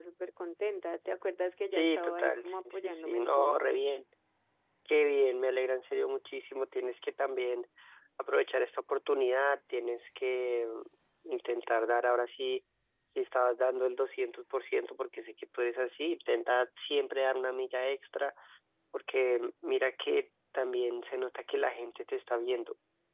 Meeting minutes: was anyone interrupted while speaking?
Yes, from 1.7 s

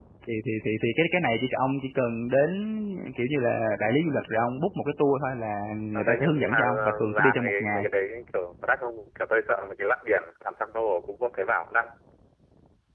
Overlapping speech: Yes, from 5.9 s

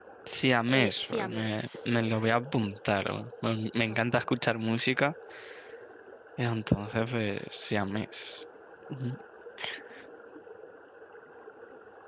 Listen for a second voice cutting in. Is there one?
Yes, from 0.7 s

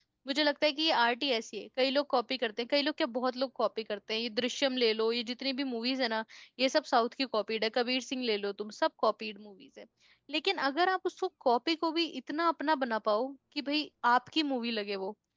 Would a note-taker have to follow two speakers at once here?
No

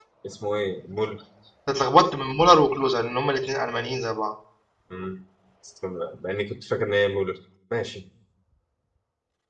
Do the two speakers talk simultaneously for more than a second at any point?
No

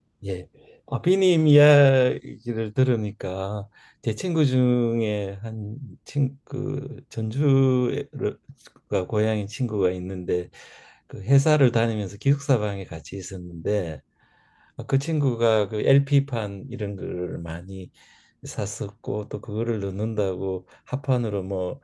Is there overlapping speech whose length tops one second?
No

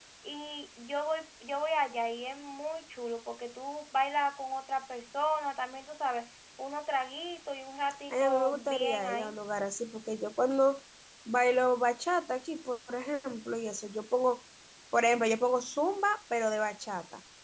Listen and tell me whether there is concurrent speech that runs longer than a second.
Yes, from 8.1 s

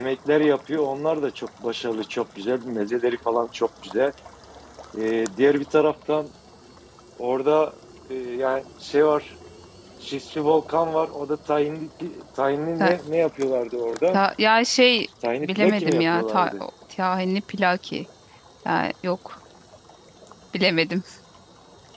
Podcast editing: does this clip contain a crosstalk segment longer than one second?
Yes, from 15.2 s

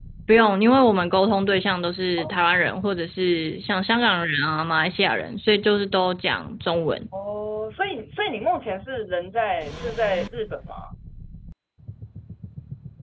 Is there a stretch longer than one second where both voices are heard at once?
No

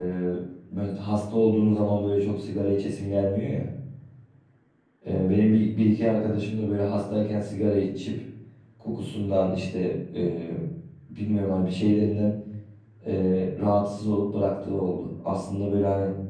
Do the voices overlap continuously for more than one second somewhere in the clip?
No

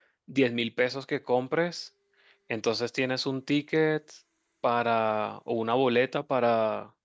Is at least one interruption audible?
No

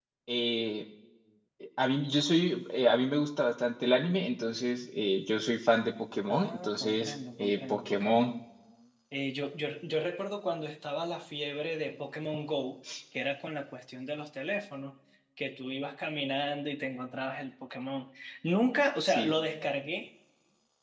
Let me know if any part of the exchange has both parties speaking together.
Yes, from 6.3 s

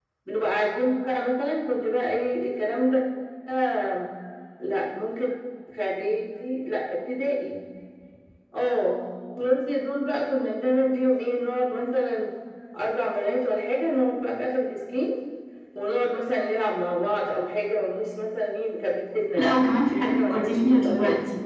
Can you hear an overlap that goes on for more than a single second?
Yes, from 19.4 s

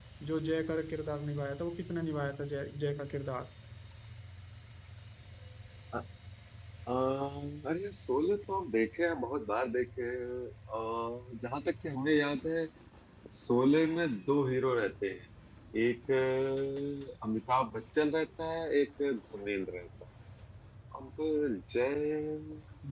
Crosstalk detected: No

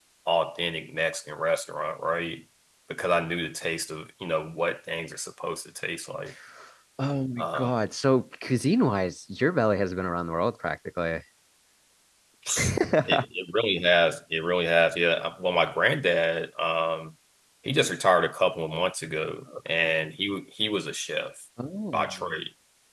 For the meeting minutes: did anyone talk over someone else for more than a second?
No

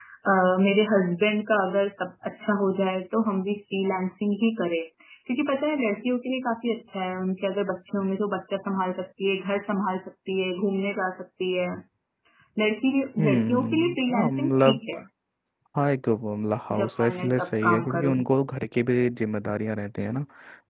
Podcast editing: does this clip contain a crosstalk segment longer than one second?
Yes, from 13.2 s

